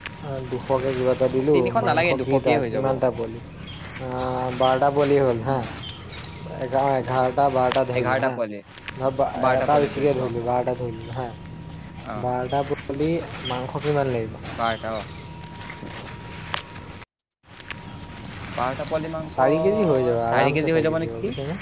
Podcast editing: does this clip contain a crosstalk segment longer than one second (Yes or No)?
Yes